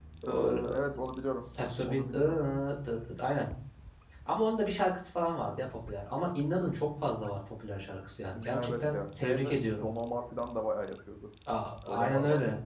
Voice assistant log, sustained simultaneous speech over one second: present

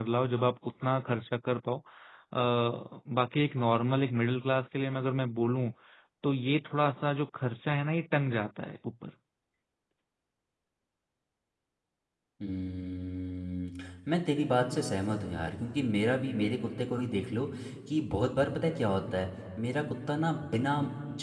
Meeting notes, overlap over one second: none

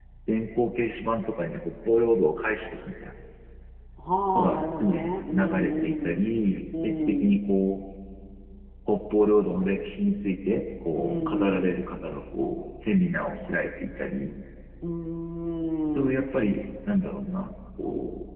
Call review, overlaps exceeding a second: present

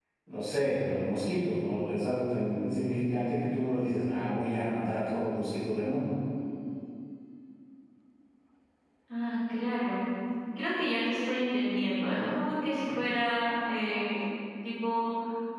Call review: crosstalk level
none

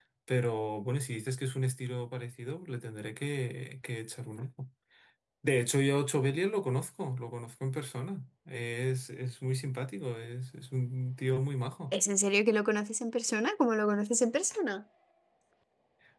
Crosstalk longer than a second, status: none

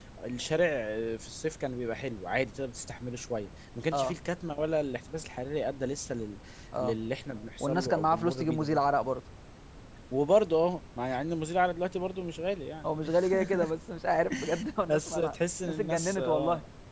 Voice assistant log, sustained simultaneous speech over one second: present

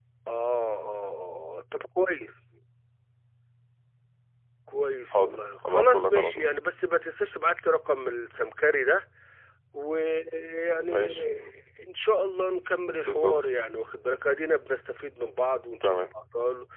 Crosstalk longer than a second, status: present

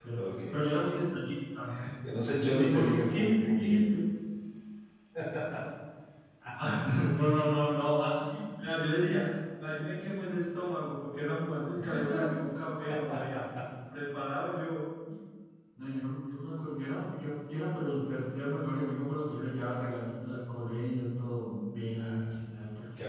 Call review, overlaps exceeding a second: present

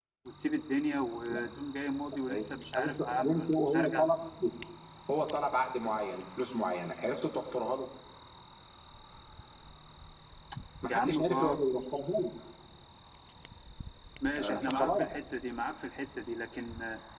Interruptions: present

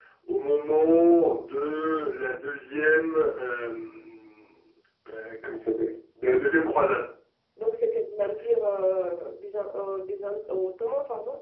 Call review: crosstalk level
none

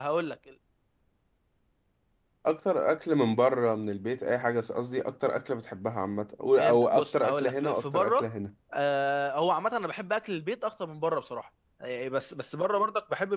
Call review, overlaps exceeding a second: present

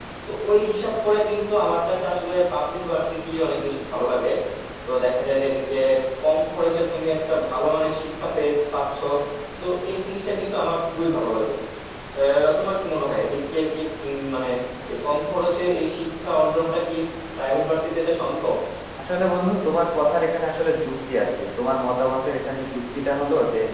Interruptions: none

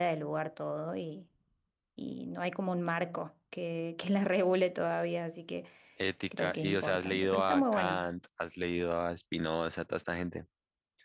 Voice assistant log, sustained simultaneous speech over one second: present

